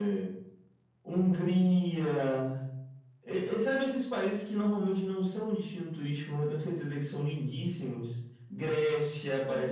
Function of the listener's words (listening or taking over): taking over